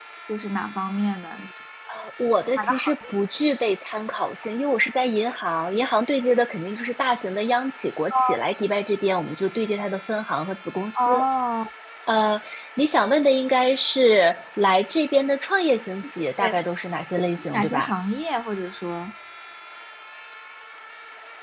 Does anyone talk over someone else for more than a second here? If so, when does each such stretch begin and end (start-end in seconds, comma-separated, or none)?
none